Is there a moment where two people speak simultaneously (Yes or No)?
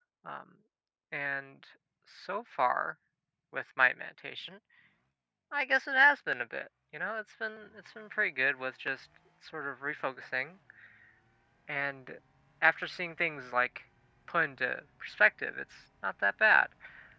No